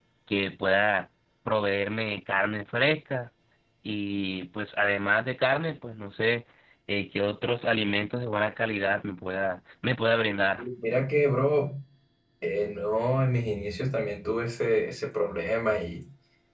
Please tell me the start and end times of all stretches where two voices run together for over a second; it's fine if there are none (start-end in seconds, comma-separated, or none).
none